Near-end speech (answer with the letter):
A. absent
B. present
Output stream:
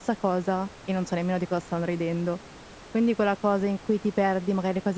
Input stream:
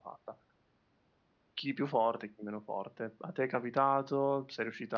B